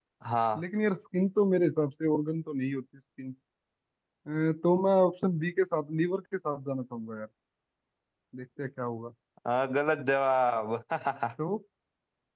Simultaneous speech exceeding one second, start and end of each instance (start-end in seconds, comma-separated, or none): none